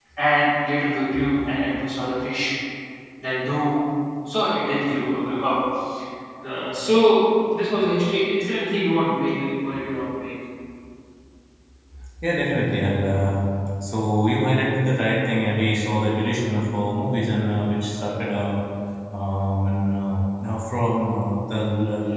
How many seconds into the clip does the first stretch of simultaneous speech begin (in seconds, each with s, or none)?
none